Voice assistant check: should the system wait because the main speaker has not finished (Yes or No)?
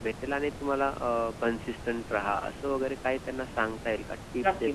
No